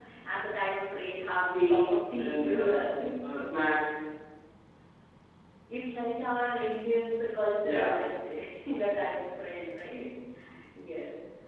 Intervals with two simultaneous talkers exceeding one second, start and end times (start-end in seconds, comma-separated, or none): 1.5-3.1